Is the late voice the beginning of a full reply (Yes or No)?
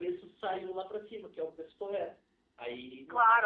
Yes